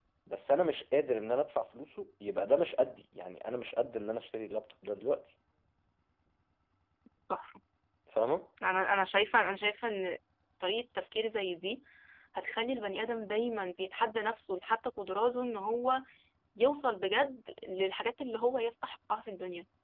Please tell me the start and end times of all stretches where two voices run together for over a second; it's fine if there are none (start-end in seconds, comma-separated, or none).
none